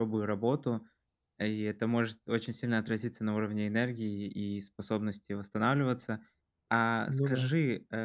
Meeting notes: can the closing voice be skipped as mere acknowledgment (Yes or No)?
Yes